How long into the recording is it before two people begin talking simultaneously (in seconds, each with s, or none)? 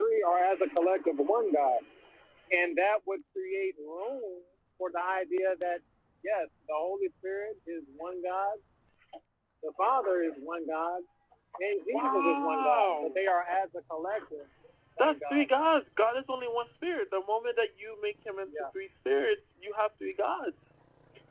11.9 s